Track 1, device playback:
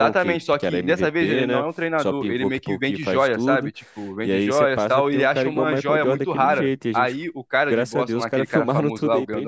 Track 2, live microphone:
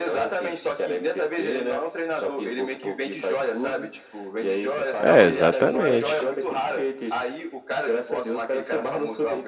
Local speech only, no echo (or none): É, exatamente.